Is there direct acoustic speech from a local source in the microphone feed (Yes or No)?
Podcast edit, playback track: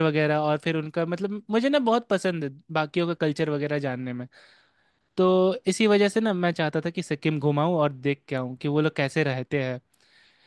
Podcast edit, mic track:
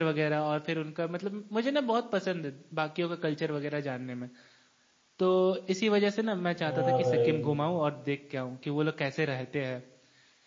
Yes